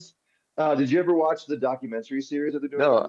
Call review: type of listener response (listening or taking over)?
taking over